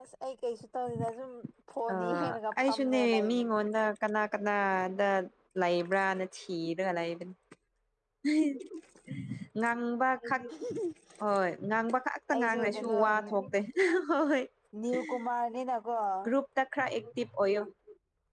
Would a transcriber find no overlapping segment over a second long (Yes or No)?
No